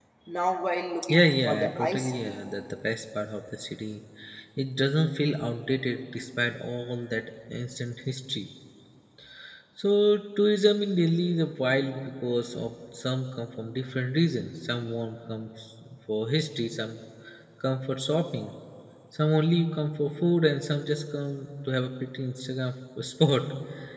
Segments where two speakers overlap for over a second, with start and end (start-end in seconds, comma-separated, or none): 1.1-2.4